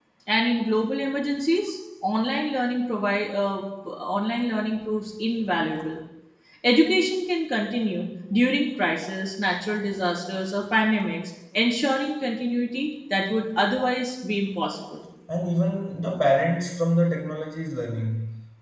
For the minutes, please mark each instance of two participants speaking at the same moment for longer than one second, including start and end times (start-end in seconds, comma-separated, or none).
none